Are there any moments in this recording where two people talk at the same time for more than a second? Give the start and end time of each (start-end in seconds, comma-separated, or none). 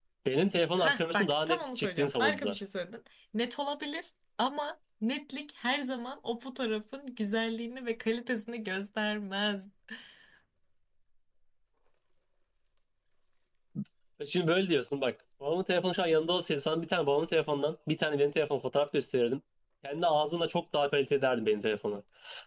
0.8-2.6